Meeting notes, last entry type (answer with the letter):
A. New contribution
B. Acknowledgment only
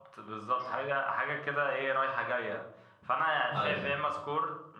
B